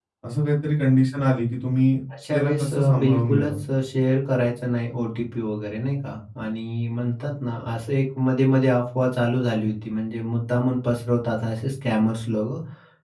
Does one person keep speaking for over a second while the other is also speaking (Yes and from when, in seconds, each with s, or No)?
Yes, from 2.2 s